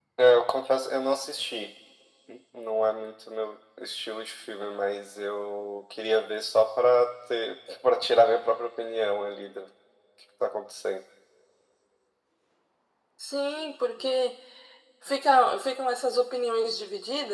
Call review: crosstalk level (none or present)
none